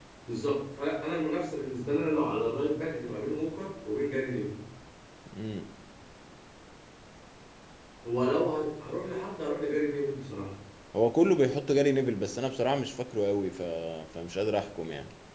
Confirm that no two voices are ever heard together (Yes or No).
Yes